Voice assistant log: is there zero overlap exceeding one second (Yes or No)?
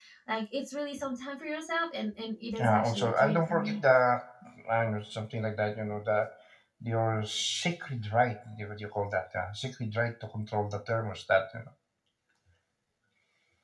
No